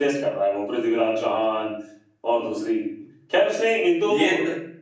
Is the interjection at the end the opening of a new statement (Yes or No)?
No